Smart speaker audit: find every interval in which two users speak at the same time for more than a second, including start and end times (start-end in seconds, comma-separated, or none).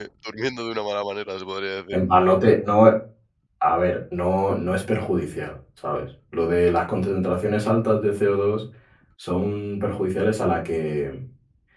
none